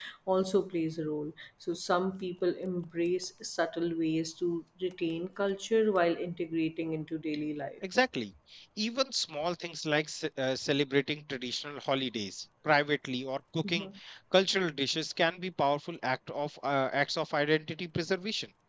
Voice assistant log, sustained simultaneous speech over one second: none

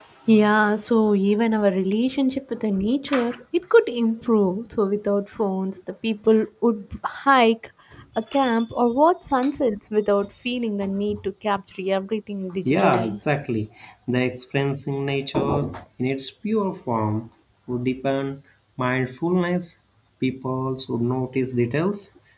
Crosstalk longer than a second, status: none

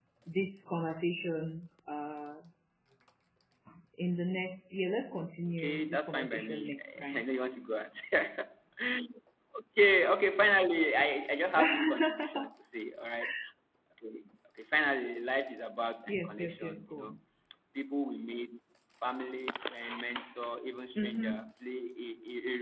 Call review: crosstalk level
present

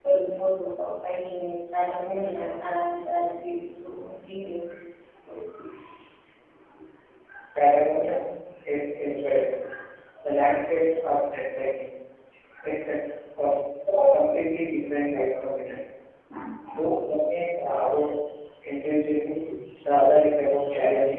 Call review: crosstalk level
none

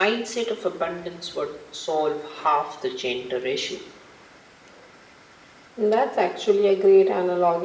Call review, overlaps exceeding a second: none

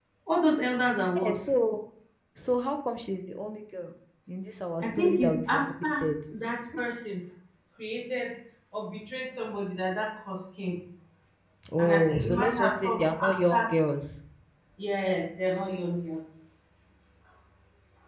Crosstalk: present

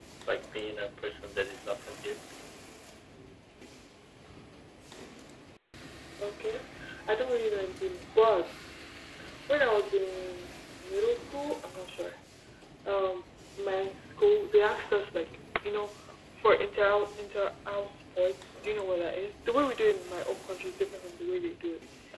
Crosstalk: none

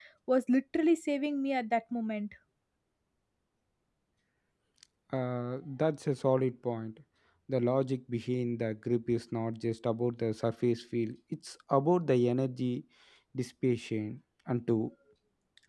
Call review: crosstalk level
none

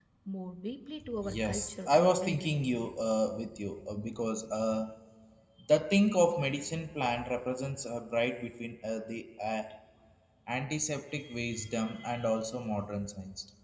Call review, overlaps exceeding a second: present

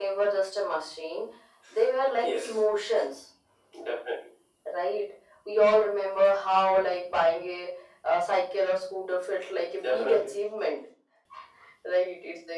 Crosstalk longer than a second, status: none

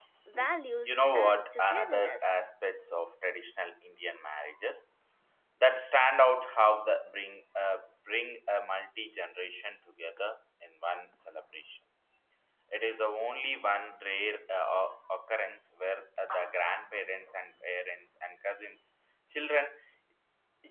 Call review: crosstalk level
present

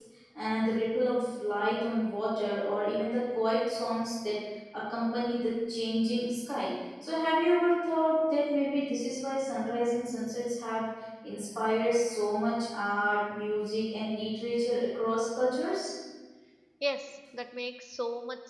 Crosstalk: none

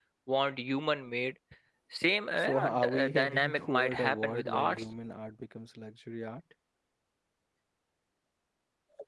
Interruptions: present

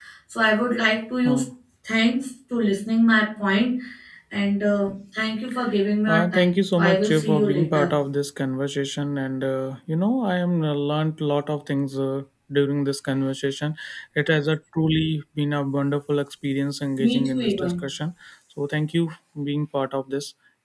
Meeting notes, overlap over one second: present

